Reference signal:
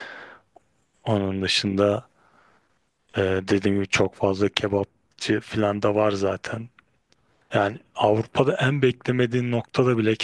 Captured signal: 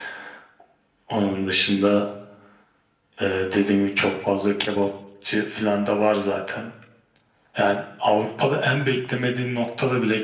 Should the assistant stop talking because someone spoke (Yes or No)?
No